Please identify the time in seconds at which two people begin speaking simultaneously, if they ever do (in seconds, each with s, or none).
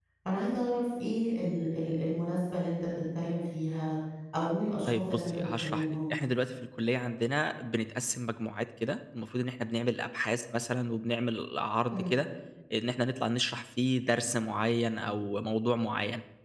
4.9 s